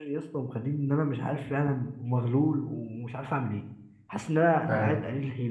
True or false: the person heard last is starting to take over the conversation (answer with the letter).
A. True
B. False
B